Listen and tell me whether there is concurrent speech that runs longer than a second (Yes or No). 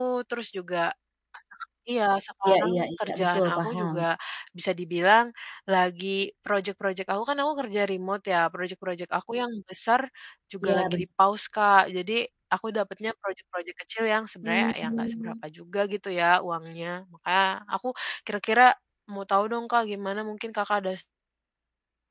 Yes